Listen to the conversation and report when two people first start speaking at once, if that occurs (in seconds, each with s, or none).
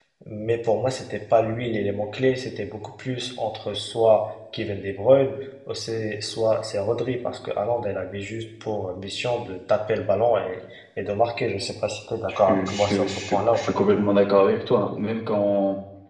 12.3 s